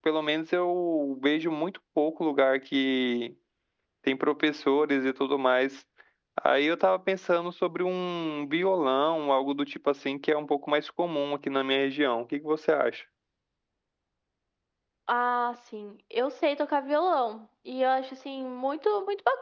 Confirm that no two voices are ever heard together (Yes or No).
Yes